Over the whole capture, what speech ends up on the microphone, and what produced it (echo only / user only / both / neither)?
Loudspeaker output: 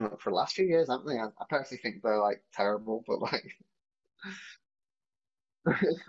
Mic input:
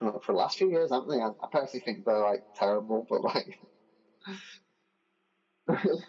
echo only